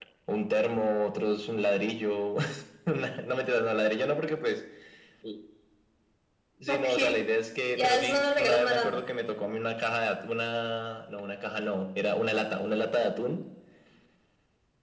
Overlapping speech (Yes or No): Yes